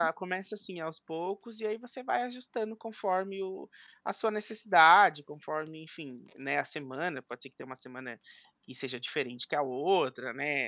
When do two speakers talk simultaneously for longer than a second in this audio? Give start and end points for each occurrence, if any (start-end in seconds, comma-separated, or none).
none